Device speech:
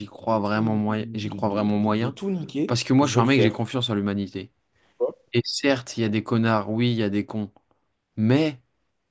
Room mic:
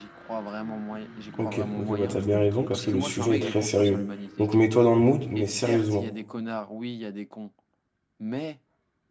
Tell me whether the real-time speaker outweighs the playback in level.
Yes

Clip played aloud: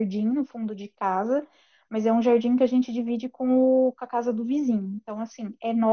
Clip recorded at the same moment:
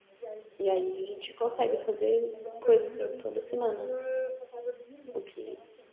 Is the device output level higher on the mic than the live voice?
No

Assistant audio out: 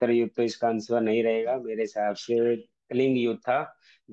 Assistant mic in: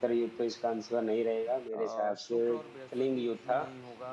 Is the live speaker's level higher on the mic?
No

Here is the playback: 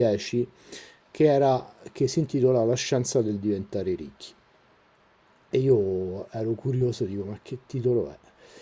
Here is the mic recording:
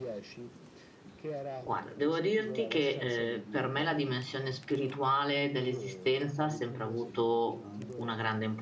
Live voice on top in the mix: Yes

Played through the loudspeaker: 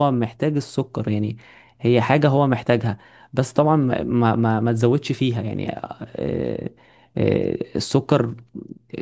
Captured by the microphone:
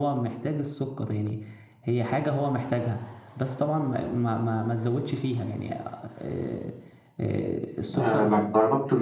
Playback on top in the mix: No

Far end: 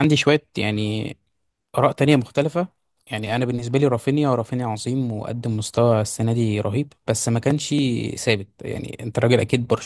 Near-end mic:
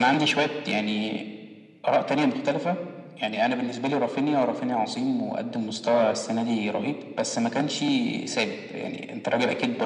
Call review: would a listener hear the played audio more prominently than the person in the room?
Yes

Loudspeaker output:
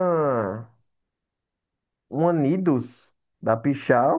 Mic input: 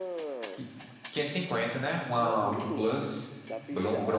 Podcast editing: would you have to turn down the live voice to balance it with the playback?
Yes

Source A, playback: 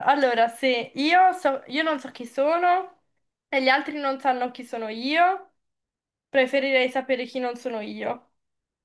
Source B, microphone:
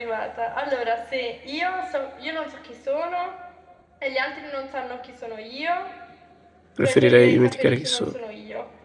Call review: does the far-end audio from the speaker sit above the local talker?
No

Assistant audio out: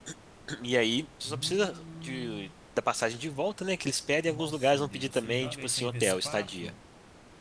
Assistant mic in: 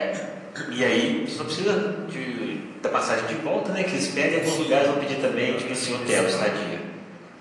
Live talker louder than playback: No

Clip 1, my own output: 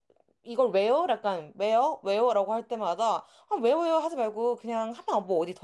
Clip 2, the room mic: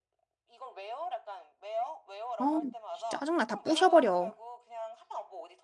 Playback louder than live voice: No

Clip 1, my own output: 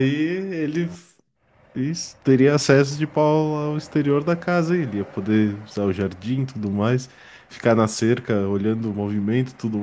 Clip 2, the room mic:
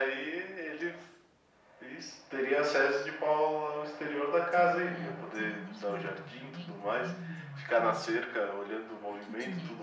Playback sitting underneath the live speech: No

